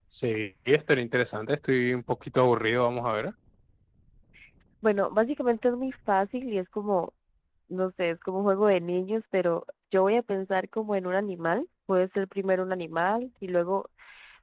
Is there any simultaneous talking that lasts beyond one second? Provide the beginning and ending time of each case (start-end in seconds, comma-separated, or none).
none